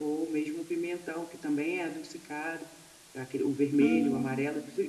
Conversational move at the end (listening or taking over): listening